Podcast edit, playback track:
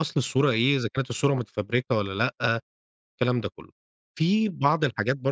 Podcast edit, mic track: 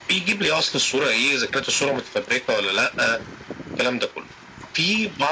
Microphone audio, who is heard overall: echo only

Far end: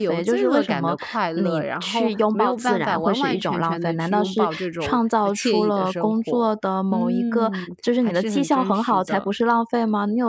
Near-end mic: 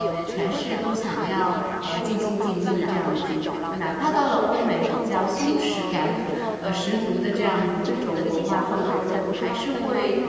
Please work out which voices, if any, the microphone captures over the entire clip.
both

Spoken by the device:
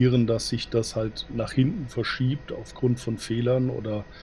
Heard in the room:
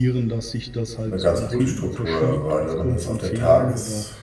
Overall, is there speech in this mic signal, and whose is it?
both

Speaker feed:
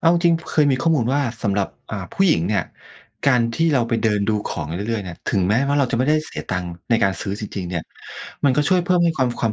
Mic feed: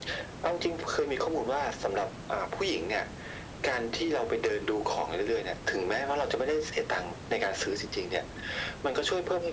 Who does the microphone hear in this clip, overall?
echo only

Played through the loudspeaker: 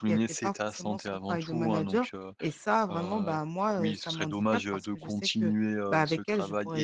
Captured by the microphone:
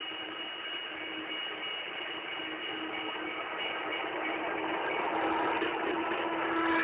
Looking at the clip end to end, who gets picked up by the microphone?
neither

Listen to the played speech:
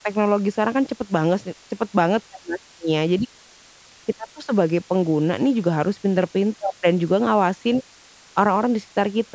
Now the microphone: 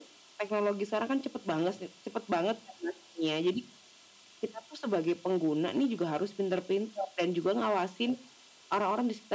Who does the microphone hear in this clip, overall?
echo only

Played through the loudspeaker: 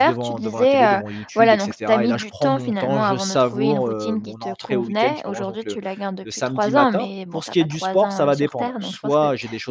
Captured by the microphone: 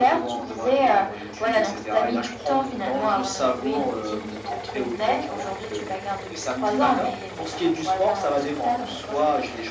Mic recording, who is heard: echo only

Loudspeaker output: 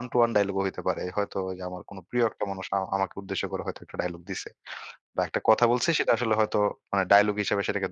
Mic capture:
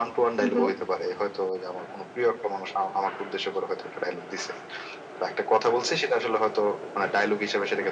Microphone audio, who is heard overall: both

